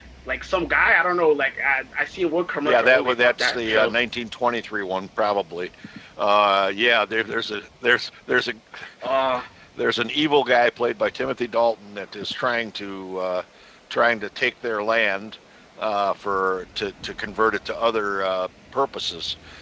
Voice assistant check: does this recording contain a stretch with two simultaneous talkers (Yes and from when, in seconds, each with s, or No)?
Yes, from 2.6 s